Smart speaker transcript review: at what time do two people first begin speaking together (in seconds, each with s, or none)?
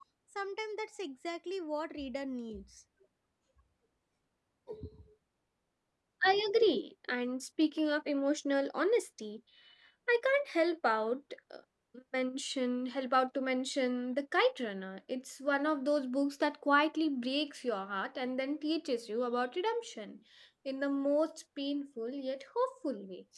none